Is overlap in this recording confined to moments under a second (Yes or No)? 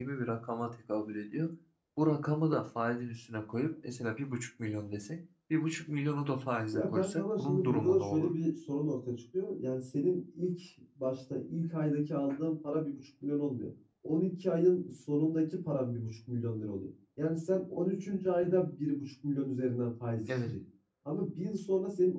No